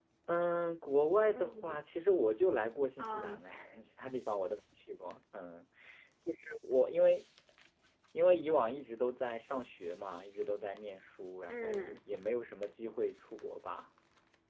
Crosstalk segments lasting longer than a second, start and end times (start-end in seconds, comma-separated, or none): none